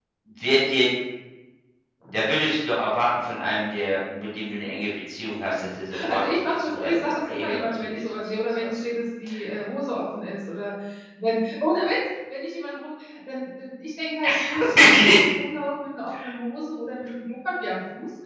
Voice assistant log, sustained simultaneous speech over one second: present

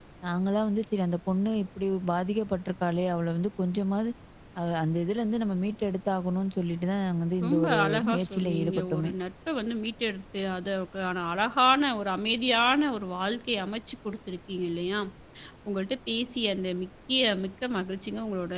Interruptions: present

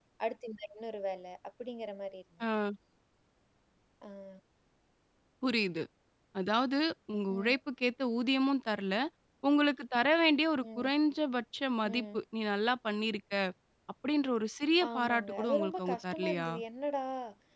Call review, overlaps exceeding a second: present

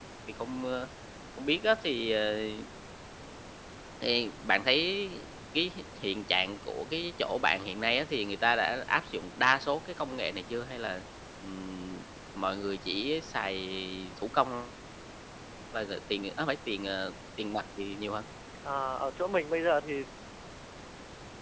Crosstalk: none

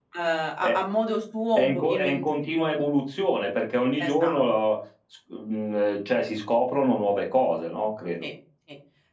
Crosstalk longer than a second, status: present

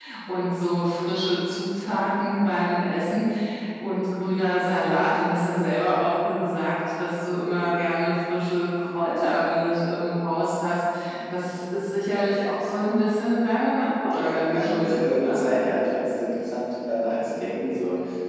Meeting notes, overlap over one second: present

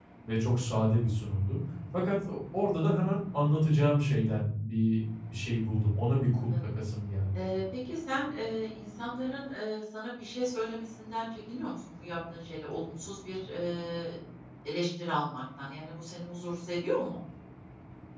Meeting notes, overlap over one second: none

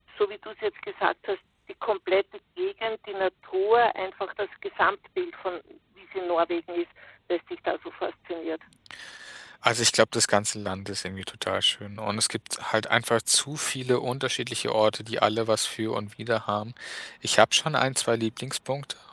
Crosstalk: none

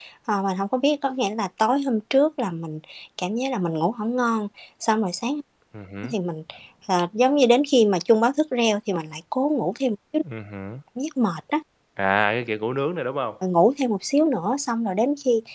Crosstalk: none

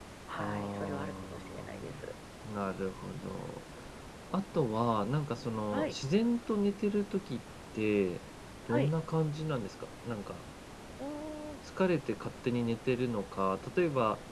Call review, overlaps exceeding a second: present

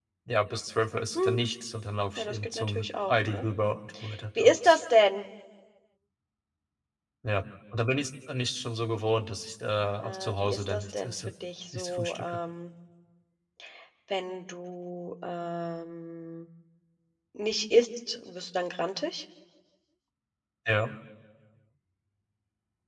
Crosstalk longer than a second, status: present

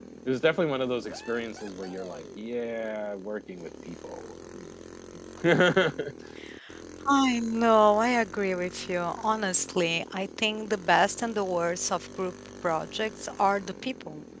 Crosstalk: none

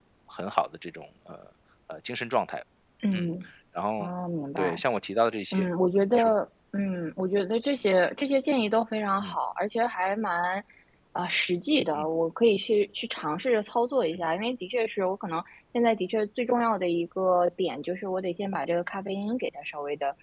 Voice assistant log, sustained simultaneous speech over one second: none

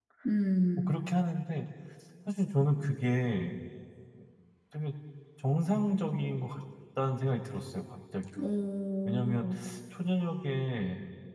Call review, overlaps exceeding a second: none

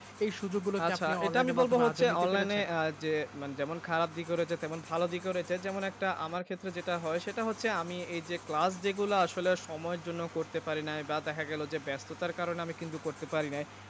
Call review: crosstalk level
present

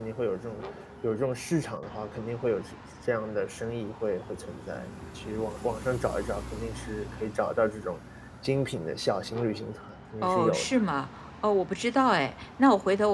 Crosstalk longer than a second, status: none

